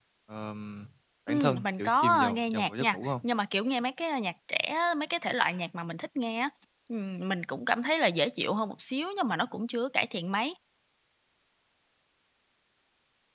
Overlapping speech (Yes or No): Yes